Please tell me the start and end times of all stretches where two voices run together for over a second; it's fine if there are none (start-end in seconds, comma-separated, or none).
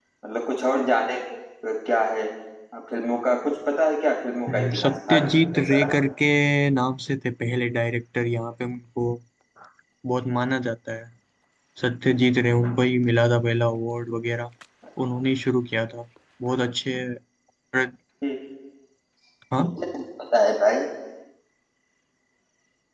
4.5-6.0